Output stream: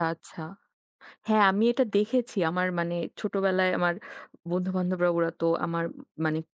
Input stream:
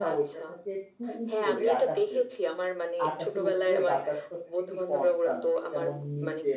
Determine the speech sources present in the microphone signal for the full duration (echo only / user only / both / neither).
both